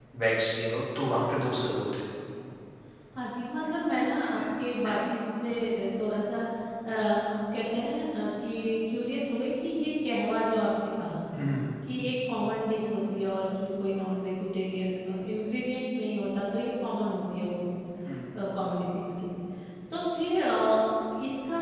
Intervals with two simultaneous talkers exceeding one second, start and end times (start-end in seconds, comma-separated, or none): none